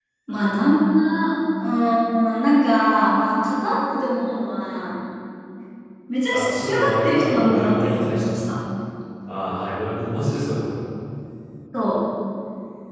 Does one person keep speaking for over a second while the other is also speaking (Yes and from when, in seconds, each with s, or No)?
Yes, from 6.3 s